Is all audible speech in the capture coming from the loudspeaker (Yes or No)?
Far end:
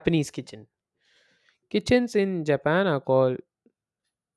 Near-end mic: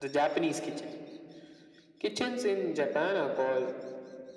Yes